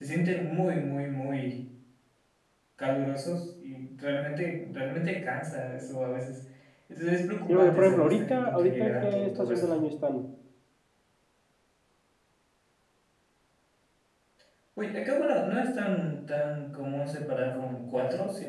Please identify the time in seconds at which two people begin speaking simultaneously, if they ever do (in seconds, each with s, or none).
7.5 s